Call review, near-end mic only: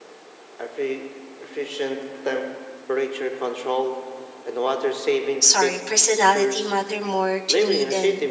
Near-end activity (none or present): present